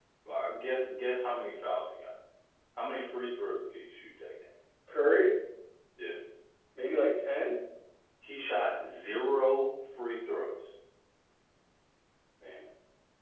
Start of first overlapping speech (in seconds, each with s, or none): none